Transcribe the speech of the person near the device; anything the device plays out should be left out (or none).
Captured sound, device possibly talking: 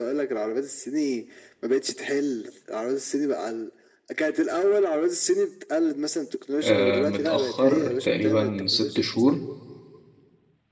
آه، متأخر تقريبا ست شهور